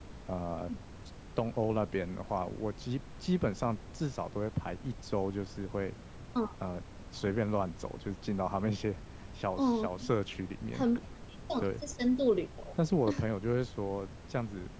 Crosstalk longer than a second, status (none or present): none